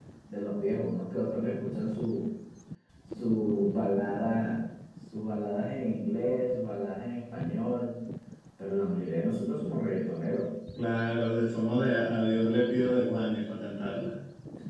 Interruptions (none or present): none